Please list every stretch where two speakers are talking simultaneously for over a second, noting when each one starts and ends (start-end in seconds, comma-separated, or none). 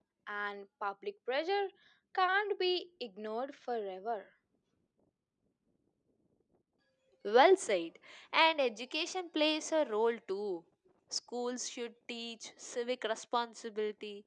none